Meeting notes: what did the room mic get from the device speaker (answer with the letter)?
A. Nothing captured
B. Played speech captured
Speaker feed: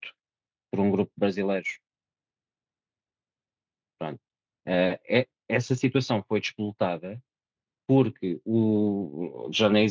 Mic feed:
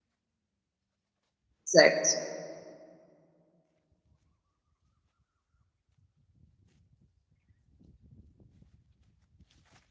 A